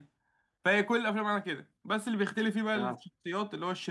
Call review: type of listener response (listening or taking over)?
listening